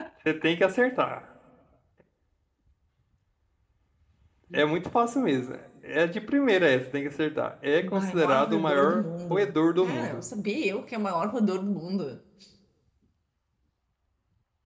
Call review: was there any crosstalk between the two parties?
Yes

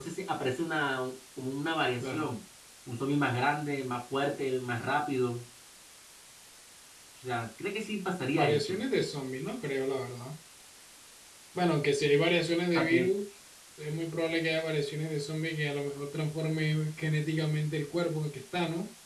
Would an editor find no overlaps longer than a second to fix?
Yes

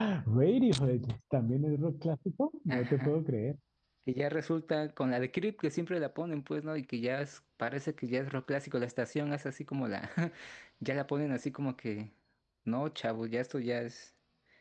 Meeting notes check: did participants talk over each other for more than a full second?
No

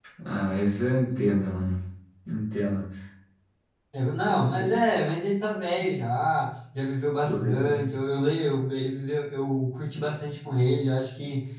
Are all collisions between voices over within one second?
Yes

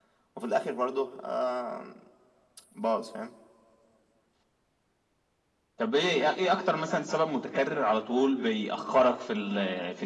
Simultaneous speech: No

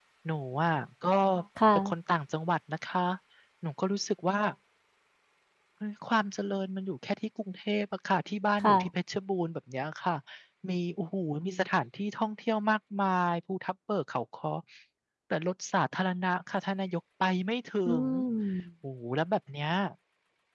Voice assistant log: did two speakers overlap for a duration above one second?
No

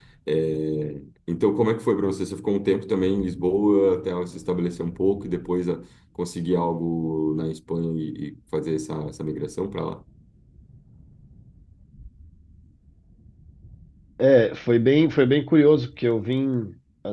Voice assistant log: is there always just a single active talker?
Yes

